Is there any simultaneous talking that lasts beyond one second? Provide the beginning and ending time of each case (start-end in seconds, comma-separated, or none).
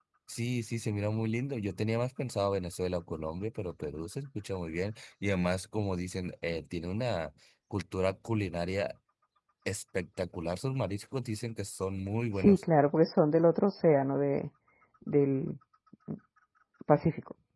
none